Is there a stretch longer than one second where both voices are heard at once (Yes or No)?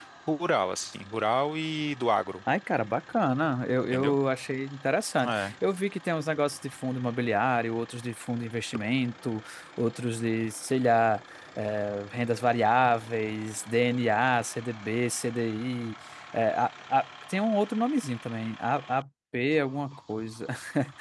No